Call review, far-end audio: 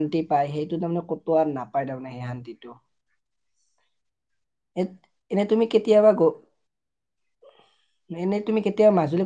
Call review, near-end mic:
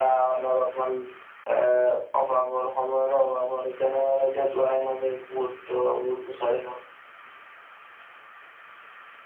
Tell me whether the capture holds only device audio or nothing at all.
No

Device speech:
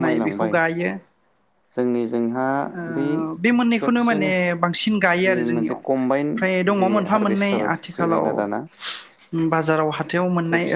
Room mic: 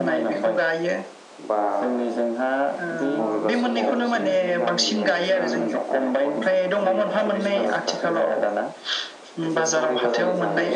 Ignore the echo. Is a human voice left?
Yes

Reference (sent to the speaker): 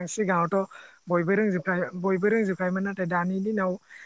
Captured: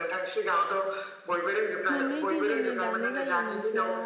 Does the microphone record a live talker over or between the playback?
Yes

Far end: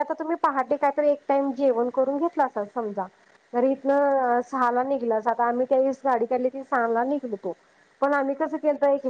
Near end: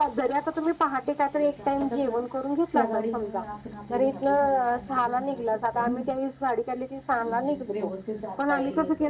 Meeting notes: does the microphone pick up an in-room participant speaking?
Yes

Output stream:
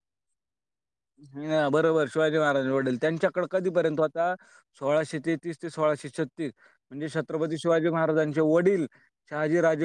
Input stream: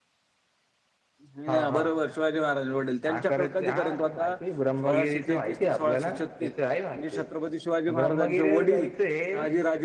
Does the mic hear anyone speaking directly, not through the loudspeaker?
Yes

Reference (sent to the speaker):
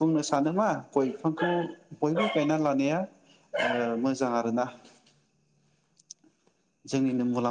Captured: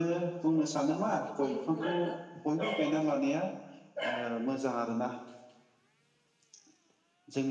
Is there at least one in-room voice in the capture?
Yes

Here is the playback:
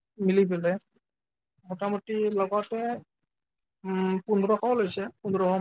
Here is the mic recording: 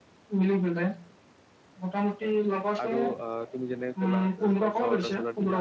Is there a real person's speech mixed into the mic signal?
Yes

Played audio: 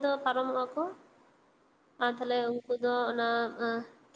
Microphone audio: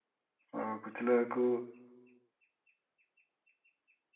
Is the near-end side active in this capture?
Yes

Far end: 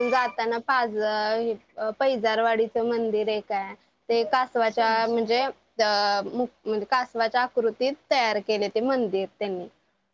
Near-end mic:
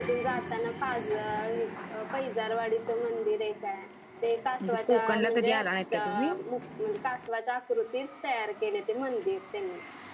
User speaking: Yes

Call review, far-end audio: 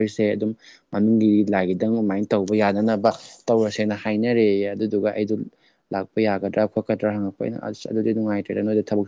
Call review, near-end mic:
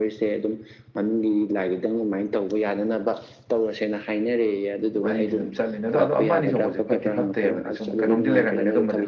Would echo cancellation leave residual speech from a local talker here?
Yes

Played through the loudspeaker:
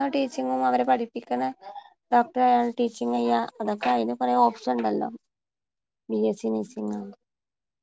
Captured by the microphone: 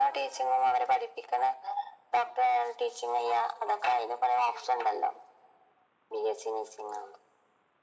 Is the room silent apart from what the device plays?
Yes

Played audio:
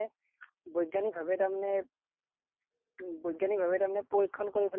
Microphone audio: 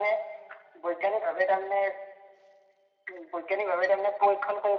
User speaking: No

